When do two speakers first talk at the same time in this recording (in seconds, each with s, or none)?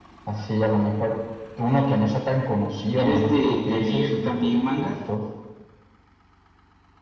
3.0 s